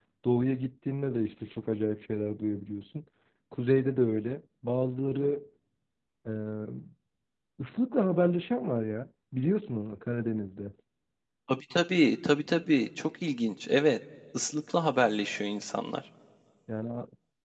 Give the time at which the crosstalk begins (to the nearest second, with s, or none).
none